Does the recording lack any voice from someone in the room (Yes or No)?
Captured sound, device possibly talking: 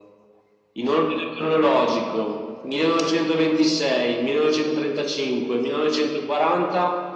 Yes